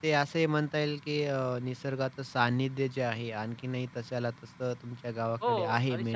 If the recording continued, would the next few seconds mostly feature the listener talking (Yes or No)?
Yes